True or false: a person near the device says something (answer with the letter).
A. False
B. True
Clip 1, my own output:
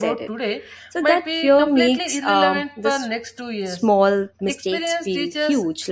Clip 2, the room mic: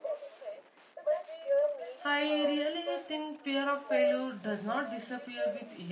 B